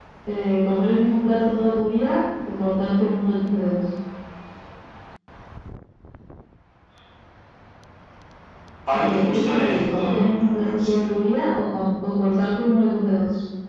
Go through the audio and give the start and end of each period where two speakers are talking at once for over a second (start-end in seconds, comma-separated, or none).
8.9-11.1